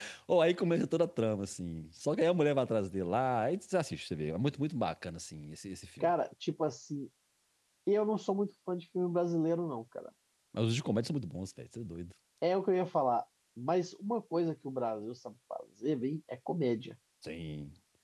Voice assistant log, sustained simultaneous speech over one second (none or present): none